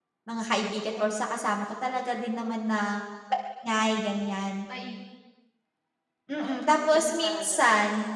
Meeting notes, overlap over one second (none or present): present